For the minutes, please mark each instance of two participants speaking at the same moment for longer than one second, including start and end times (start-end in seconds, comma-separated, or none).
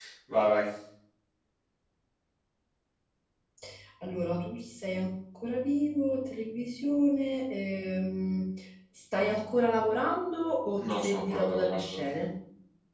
10.8-12.0